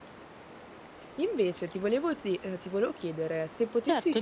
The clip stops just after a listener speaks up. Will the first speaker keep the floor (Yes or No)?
Yes